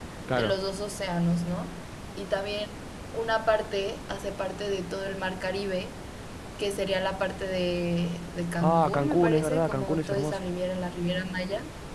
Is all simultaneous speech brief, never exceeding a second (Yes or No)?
No